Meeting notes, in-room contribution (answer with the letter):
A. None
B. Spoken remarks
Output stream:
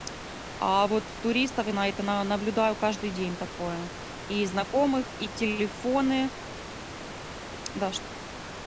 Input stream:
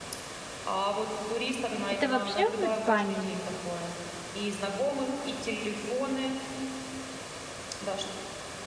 B